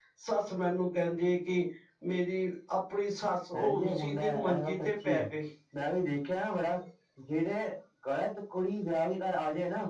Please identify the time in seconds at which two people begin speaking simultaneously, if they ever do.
3.6 s

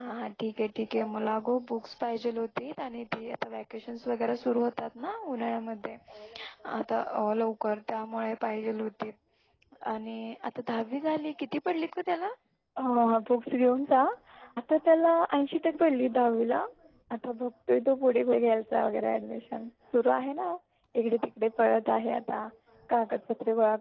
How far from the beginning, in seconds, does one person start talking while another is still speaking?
none

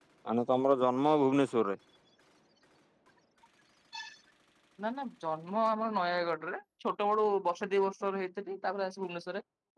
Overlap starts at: none

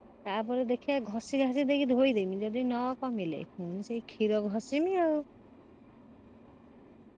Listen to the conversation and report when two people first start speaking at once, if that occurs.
none

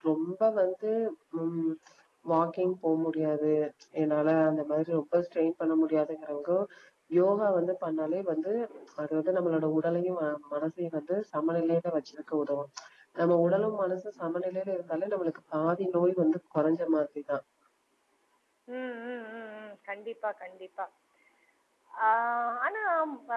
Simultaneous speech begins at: none

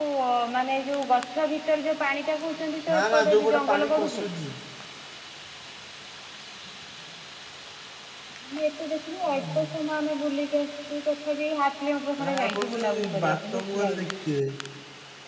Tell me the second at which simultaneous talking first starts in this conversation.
2.9 s

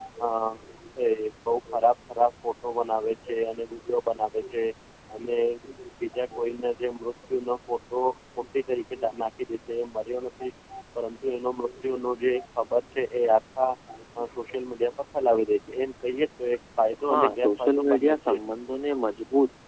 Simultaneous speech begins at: 17.1 s

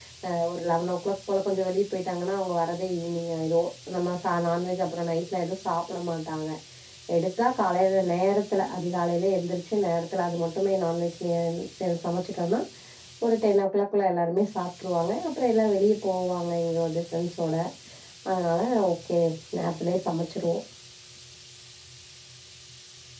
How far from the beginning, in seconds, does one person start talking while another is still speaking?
none

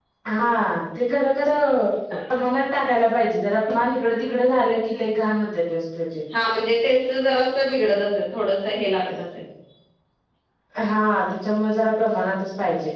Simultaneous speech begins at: none

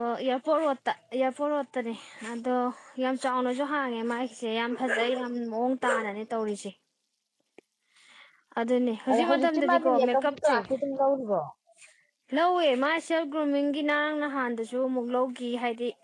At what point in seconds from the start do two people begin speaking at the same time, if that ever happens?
9.1 s

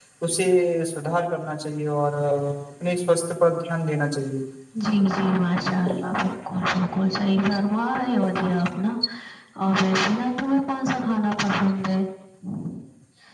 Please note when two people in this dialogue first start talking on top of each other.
none

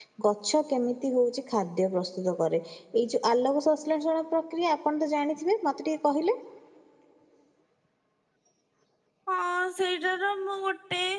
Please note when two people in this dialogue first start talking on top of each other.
none

